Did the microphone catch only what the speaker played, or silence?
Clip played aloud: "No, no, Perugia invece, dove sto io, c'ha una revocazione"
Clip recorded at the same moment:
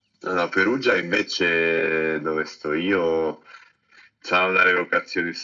Yes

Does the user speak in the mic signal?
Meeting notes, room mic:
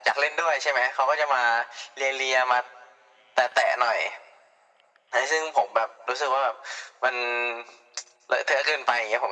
No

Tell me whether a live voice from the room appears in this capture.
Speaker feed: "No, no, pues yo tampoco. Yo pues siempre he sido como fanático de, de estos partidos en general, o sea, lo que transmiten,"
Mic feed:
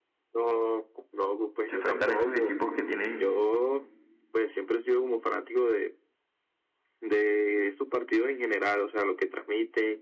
Yes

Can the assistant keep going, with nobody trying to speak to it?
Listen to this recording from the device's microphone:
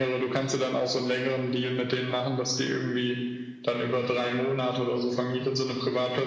Yes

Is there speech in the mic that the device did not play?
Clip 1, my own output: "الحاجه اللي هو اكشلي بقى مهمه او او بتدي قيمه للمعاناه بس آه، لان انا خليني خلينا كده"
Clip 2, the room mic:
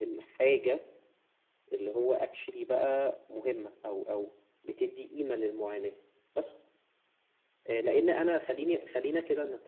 No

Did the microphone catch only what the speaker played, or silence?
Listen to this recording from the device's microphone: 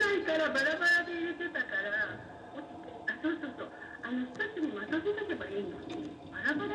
Yes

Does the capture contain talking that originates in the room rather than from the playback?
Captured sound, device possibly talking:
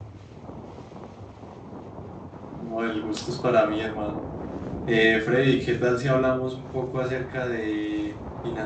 Yes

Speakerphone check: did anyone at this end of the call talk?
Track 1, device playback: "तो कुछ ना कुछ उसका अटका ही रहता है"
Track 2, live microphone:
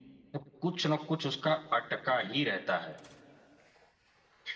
No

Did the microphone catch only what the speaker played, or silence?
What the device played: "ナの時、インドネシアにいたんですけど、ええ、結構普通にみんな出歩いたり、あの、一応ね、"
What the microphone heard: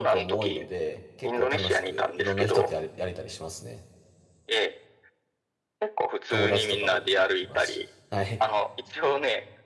No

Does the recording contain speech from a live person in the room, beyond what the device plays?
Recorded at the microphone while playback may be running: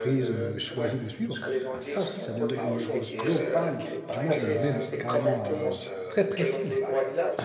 Yes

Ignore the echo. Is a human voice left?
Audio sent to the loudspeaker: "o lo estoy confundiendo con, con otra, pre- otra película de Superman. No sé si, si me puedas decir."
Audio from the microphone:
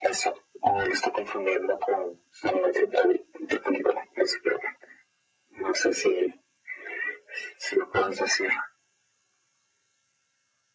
No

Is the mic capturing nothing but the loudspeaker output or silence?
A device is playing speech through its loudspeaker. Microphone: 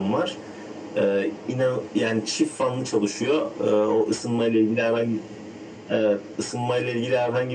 Yes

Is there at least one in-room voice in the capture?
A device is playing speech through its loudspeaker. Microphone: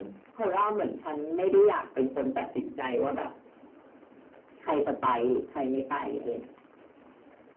No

